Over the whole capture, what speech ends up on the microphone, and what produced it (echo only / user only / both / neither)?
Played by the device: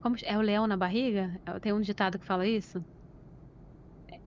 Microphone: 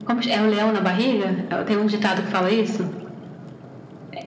echo only